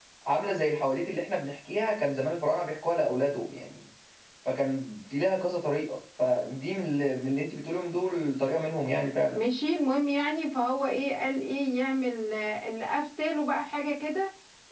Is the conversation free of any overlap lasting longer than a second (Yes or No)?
Yes